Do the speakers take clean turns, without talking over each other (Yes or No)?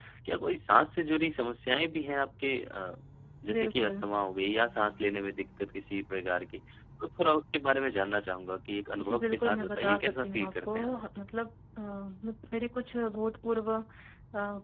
No